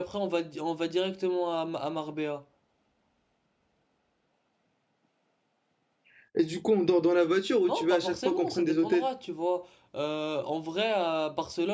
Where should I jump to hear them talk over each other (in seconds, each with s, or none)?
7.6 s